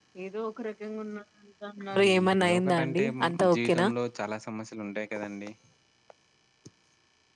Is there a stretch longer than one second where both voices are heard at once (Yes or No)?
Yes